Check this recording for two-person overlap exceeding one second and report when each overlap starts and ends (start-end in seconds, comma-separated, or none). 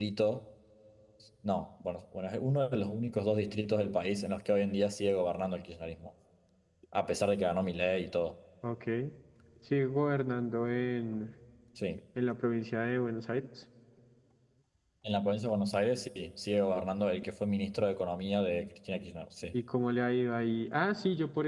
none